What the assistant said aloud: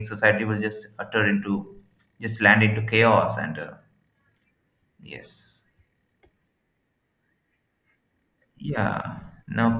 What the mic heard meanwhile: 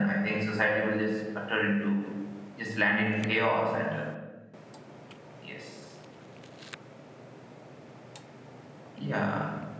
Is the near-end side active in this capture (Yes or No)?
No